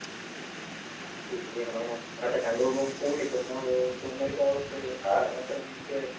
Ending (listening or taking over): listening